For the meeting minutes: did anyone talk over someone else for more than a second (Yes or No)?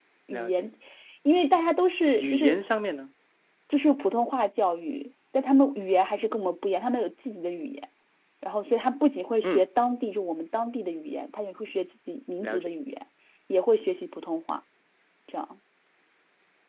No